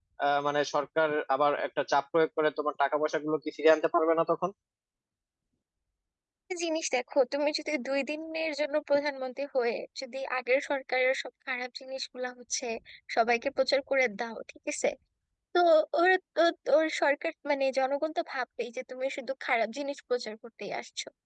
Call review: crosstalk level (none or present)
none